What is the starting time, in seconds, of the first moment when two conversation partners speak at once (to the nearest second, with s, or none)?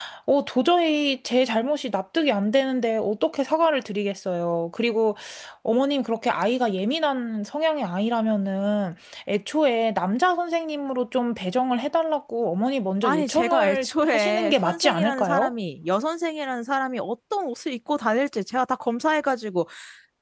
13 s